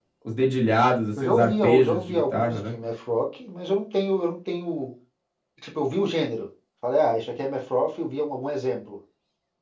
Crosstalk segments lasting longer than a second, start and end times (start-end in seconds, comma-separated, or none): 1.2-2.8